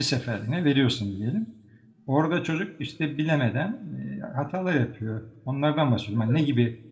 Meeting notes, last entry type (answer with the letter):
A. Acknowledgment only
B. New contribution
A